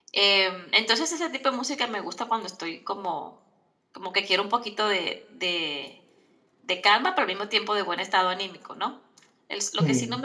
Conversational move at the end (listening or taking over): listening